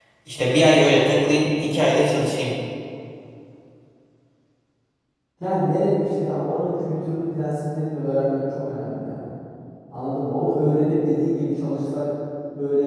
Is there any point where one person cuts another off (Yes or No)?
No